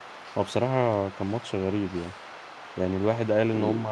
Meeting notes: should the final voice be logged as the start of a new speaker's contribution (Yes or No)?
No